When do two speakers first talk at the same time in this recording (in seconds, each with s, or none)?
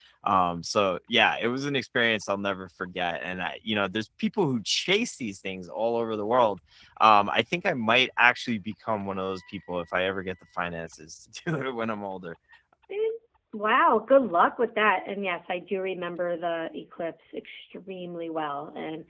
none